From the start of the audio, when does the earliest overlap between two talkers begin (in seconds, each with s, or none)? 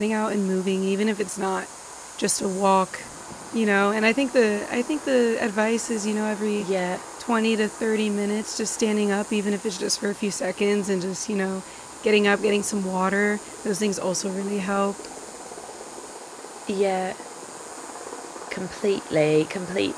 none